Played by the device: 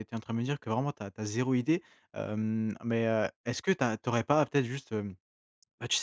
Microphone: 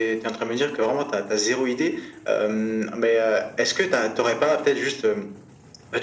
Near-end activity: none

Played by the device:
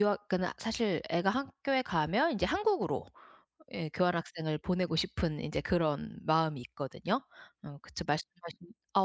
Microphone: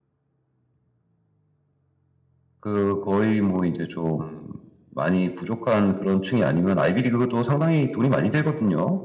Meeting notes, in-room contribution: present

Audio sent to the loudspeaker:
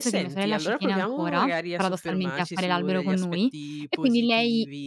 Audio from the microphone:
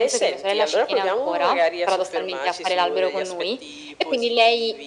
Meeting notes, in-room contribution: none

